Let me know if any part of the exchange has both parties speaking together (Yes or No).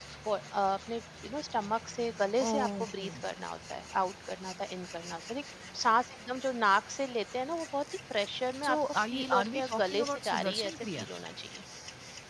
Yes